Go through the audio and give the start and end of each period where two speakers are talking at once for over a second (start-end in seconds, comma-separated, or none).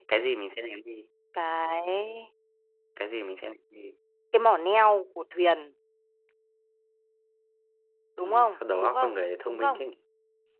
8.2-9.8